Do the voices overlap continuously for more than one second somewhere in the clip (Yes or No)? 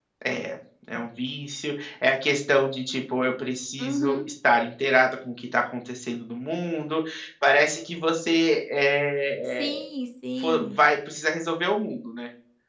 No